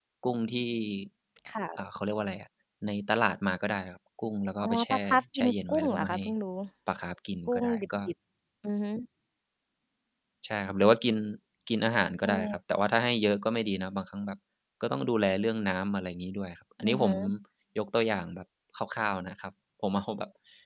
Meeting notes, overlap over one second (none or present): present